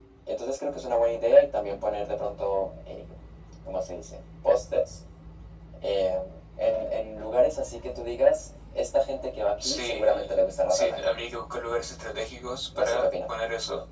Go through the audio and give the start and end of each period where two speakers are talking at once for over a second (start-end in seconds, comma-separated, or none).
9.6-11.1